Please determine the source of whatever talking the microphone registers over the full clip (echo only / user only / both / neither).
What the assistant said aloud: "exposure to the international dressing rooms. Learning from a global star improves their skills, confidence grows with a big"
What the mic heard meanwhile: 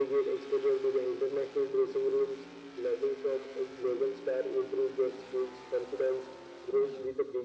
echo only